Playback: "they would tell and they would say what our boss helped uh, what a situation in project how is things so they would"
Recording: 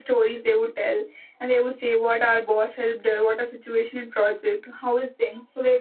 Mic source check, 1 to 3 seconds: echo only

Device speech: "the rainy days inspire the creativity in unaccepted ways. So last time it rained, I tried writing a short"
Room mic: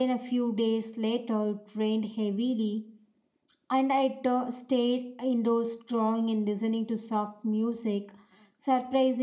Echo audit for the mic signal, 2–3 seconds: user only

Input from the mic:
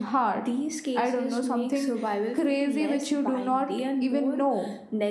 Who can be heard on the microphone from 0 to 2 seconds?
echo only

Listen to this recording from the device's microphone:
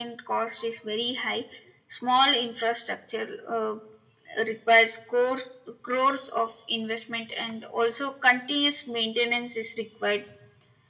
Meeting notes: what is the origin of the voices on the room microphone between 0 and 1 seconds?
echo only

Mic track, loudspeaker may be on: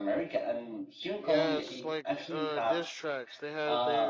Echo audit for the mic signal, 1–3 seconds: both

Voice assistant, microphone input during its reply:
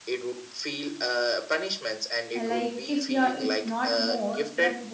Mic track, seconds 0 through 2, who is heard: echo only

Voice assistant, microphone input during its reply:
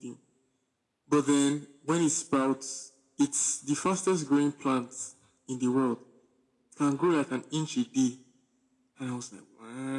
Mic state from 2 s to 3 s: echo only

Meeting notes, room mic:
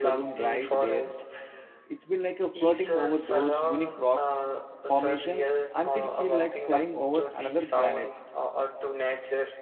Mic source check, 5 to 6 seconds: both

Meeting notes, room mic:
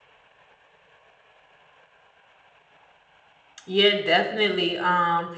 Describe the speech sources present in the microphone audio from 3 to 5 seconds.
user only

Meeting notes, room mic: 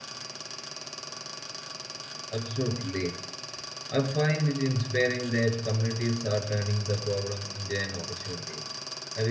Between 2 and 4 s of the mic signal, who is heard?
user only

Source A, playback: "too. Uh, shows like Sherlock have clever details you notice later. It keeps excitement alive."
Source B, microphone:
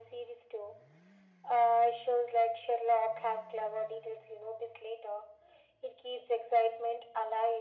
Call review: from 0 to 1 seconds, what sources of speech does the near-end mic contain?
echo only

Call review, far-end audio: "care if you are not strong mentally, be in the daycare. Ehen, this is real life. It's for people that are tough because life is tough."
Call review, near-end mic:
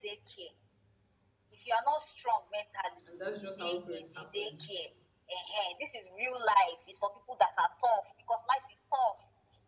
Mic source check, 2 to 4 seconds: both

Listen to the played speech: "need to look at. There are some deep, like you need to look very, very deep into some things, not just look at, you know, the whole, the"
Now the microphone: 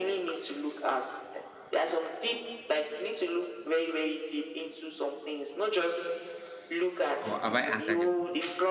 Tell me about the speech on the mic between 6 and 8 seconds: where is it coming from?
both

